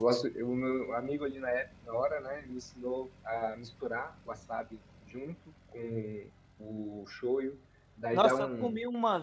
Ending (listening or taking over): taking over